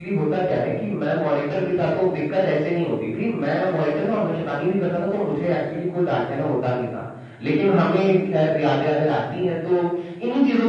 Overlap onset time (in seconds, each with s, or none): none